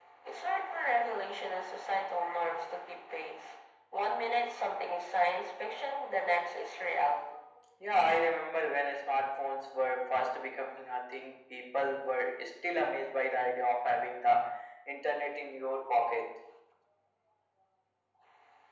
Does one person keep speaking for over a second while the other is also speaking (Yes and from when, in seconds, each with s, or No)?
No